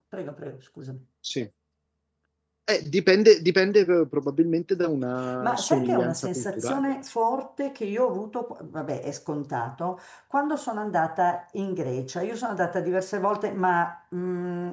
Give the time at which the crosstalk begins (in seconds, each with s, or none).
5.2 s